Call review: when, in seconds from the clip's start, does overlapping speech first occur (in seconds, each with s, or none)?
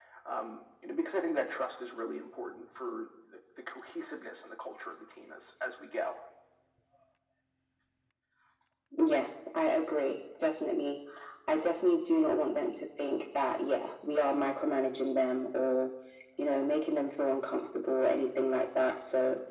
none